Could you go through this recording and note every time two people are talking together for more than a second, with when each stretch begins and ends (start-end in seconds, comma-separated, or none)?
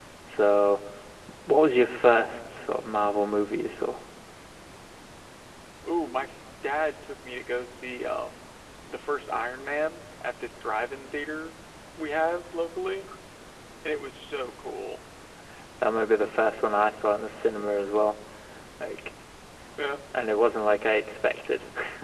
none